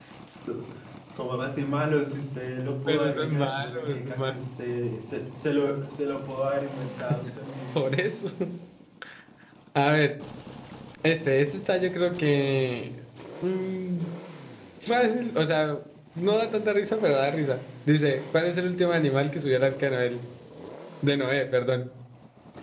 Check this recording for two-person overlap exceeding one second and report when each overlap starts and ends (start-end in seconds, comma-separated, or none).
2.9-4.3